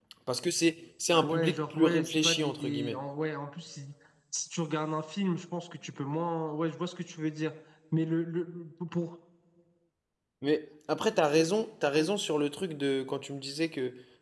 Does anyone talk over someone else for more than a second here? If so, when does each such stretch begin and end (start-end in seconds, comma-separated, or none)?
1.2-3.0